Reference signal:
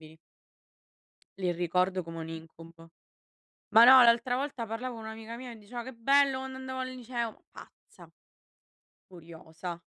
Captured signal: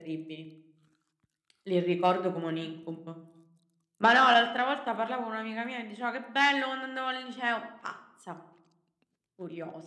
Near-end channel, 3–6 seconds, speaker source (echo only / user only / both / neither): echo only